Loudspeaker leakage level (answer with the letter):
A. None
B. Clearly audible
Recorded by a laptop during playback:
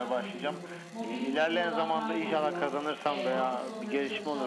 B